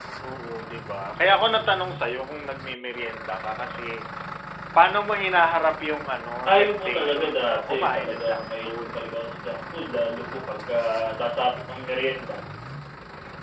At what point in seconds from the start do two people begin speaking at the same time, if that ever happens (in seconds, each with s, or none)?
6.5 s